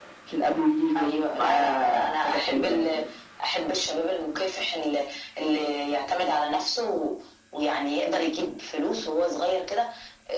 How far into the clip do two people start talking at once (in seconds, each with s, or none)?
0.9 s